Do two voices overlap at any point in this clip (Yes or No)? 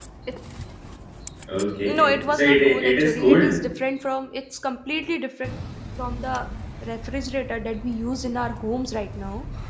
Yes